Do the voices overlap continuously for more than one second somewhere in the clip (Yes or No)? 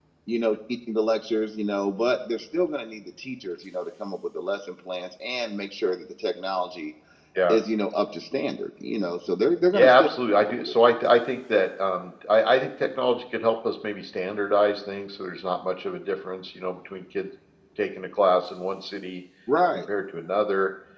No